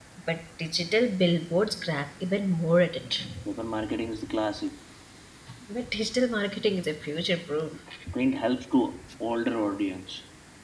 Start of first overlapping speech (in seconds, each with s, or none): none